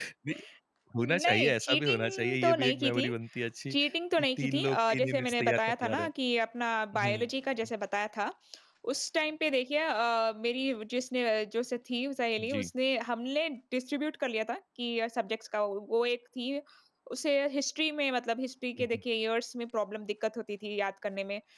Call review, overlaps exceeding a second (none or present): present